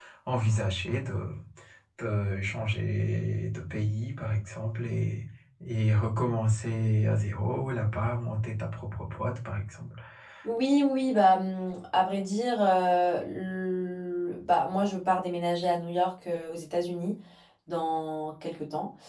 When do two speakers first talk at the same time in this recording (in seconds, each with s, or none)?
none